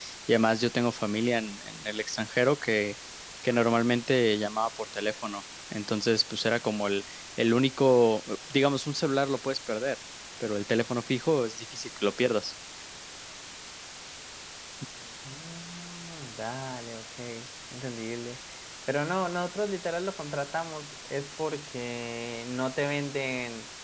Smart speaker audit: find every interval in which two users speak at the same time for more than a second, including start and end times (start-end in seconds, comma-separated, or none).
none